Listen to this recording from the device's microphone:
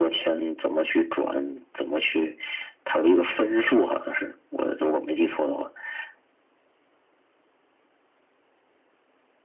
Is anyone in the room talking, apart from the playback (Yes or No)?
No